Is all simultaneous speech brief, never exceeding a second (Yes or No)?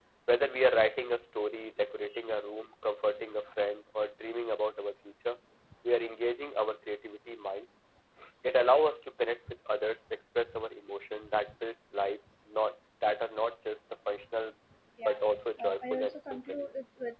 No